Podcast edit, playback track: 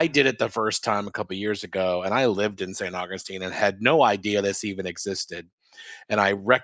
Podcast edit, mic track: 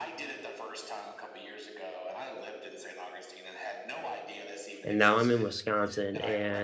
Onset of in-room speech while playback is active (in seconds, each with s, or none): 4.8 s